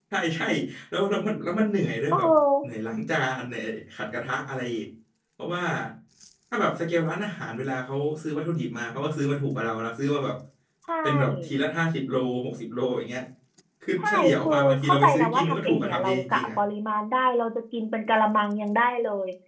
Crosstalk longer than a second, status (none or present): present